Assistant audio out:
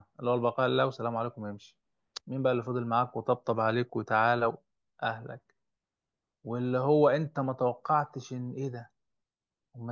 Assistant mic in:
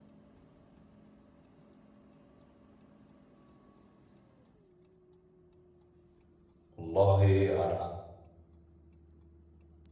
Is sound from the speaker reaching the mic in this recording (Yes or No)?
No